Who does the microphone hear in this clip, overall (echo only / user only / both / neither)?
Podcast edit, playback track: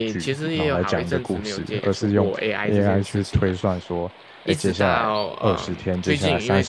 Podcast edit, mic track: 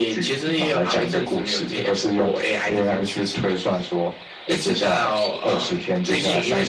echo only